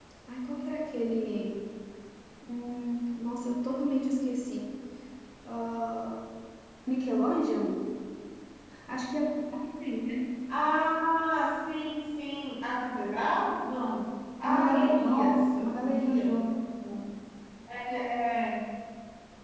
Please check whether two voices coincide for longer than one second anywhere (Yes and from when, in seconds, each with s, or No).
Yes, from 14.4 s